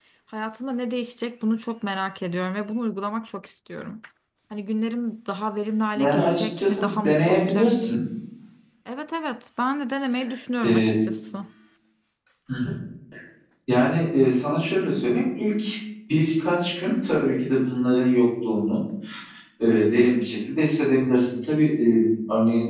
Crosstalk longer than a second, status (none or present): present